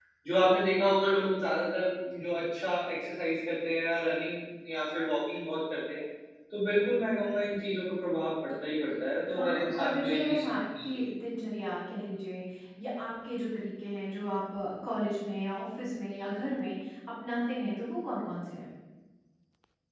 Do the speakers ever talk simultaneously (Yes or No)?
Yes